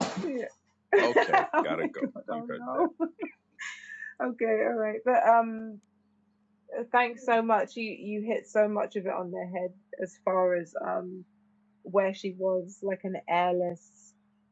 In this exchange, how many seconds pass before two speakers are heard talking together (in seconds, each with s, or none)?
1.0 s